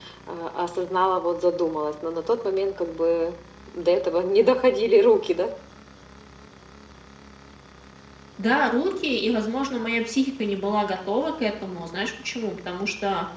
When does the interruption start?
none

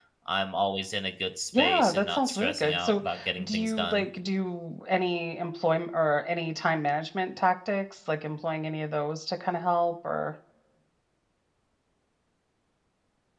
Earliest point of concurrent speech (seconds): 1.5 s

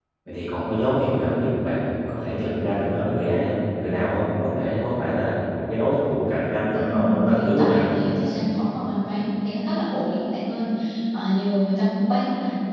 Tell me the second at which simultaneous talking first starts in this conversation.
6.7 s

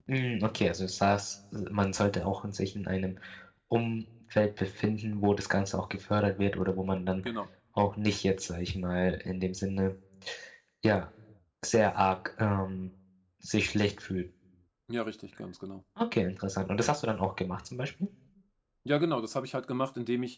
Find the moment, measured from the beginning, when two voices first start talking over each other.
none

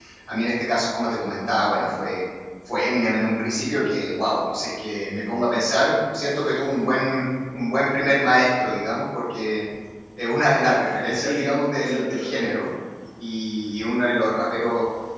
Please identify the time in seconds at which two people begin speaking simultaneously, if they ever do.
11.1 s

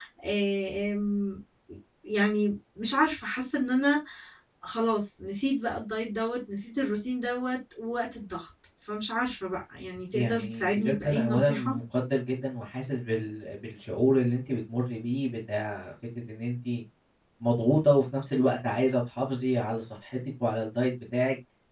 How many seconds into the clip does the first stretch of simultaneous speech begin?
10.1 s

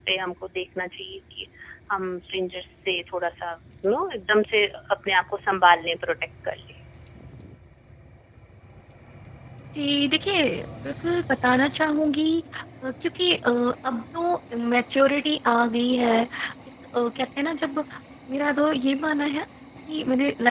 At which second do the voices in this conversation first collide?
none

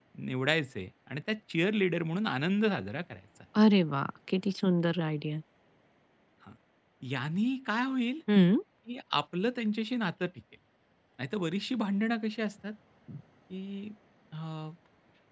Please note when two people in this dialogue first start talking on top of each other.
none

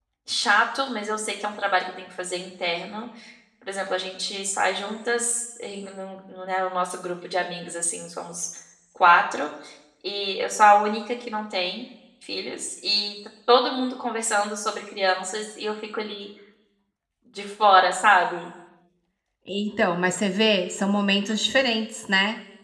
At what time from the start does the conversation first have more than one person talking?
none

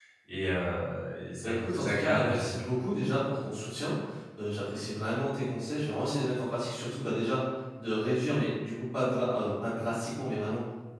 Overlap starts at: 1.4 s

